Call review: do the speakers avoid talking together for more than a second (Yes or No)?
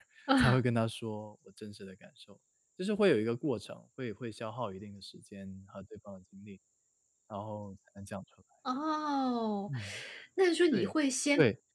Yes